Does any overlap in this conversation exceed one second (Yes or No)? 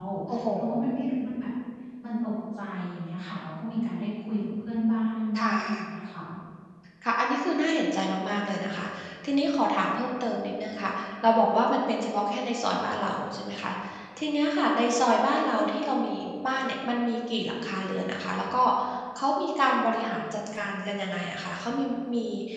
No